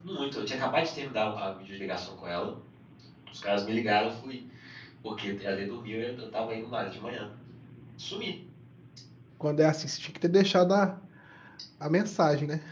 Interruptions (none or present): none